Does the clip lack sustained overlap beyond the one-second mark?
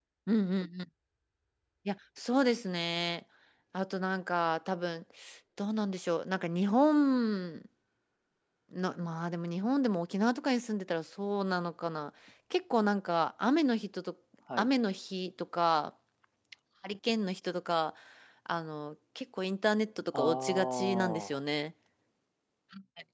No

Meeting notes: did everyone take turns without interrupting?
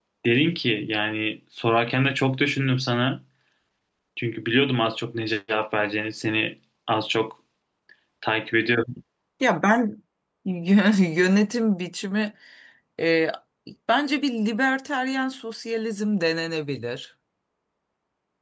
Yes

